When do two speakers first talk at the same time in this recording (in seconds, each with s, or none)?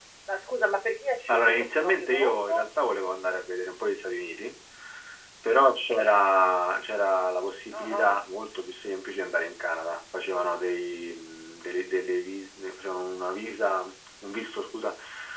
1.3 s